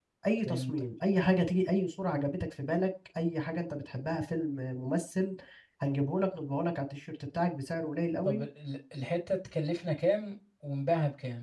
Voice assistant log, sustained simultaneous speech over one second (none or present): none